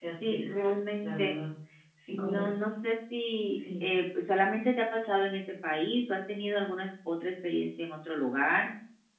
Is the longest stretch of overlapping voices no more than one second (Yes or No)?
Yes